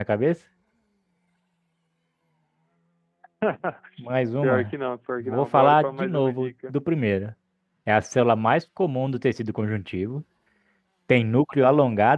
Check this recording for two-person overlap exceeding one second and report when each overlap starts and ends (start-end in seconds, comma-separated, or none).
5.2-6.7